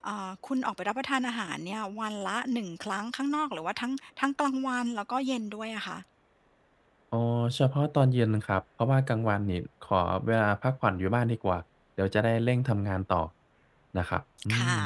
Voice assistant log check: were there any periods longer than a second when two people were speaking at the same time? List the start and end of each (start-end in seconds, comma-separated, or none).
none